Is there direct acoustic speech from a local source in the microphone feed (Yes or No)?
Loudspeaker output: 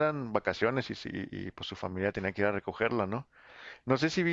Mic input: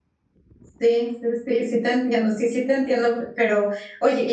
Yes